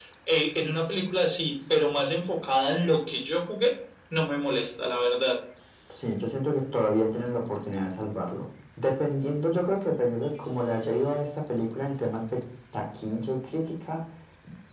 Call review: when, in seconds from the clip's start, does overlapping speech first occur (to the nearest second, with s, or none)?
none